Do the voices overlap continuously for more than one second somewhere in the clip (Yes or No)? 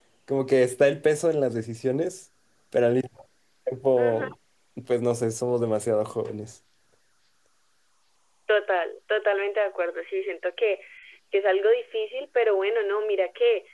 No